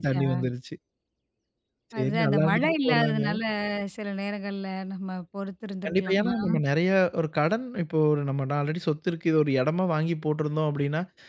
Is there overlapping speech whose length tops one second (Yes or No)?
Yes